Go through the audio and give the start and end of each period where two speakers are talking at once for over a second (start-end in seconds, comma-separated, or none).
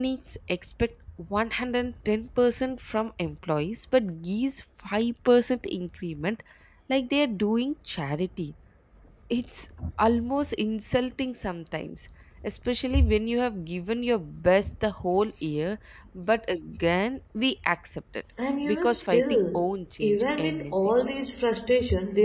18.6-20.8